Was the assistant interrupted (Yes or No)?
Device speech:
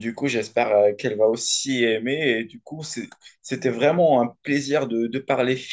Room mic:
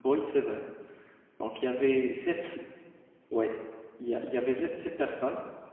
Yes